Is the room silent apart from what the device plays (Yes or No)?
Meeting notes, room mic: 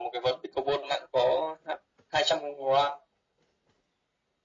Yes